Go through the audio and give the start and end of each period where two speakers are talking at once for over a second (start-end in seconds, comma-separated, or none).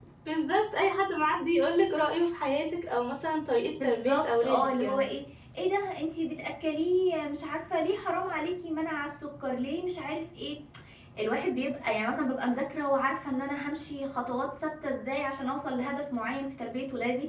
3.7-5.1